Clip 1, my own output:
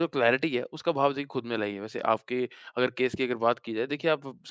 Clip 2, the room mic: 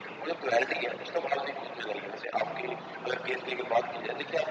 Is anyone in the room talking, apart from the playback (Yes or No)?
No